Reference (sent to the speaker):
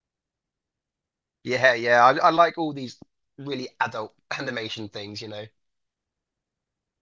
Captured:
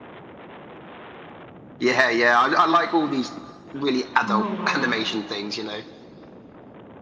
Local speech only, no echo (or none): Oh wow.